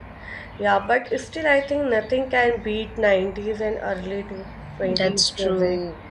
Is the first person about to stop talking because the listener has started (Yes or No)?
Yes